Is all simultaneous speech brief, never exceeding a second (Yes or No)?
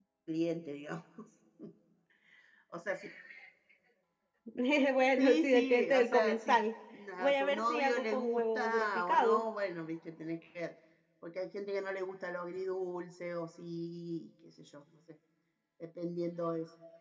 No